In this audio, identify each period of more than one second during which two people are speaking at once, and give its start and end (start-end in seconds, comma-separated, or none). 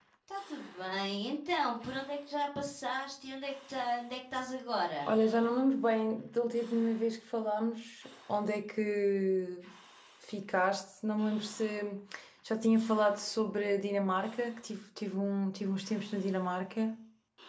none